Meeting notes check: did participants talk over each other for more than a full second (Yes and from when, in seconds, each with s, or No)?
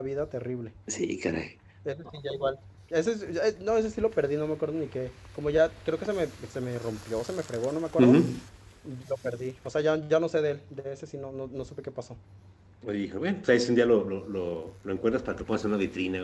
No